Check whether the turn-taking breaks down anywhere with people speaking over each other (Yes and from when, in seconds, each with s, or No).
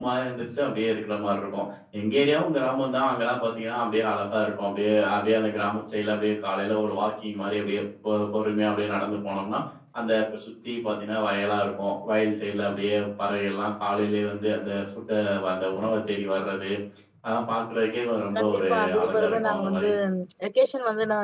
Yes, from 18.4 s